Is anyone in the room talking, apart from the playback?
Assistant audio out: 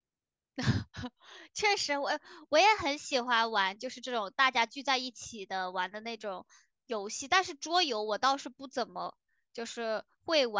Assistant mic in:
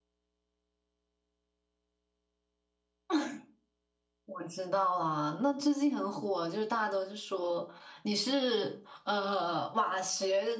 Yes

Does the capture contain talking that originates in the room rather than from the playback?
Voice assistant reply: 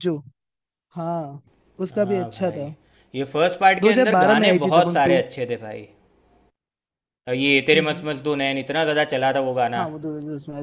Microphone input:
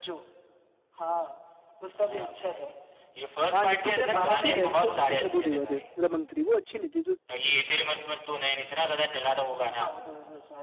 Yes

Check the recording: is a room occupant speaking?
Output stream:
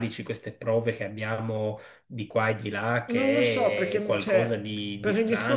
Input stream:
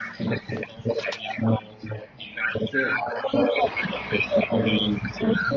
Yes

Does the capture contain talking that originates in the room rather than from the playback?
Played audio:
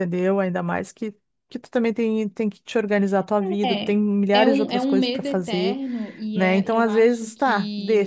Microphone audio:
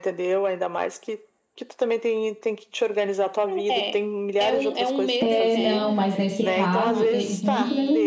Yes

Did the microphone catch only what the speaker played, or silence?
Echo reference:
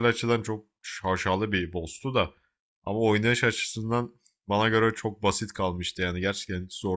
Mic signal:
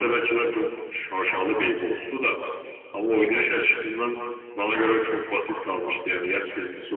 Yes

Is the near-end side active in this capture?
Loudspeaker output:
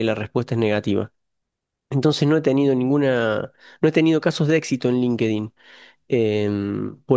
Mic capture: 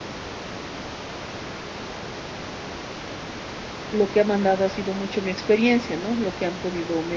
Yes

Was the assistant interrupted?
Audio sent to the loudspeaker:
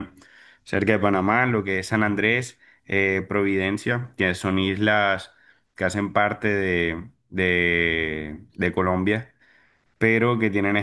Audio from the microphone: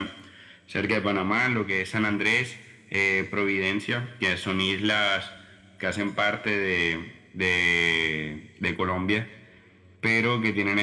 No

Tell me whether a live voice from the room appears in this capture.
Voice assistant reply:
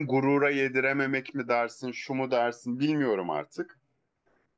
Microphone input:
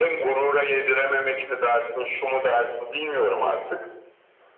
No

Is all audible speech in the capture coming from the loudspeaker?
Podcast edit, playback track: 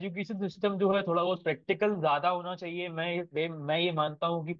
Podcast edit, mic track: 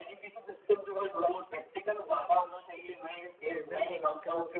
No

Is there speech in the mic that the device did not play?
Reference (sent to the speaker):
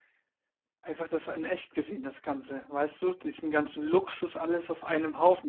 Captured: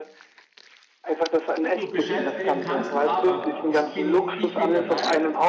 Yes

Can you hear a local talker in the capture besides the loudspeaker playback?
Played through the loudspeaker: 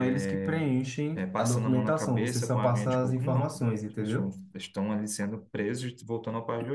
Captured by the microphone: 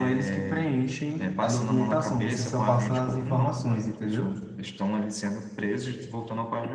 No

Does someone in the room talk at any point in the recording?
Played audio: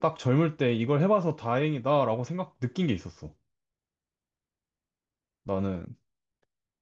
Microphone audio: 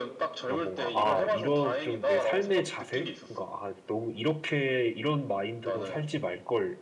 Yes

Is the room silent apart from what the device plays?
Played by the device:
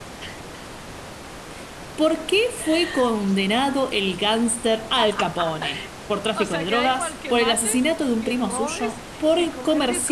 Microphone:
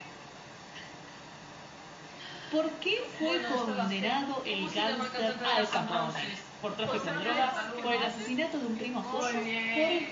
No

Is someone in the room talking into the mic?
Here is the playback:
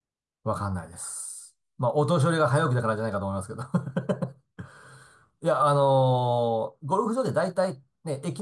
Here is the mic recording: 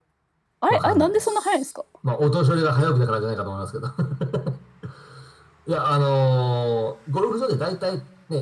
Yes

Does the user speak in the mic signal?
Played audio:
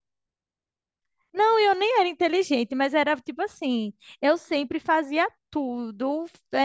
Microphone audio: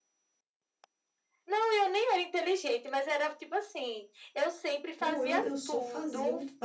Yes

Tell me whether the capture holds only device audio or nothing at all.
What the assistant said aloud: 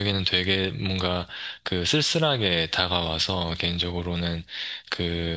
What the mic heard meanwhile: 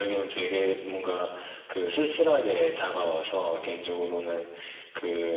Yes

